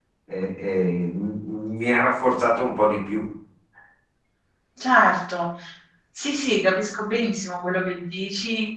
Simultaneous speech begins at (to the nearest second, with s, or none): none